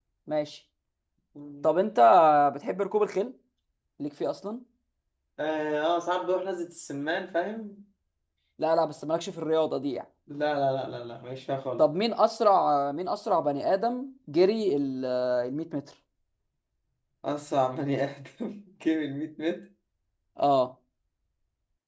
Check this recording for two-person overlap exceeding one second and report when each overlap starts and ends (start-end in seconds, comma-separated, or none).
none